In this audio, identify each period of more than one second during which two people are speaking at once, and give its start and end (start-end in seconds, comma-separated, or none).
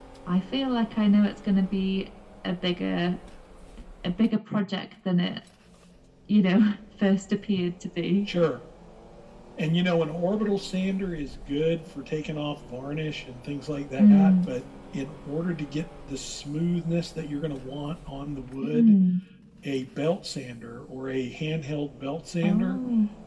none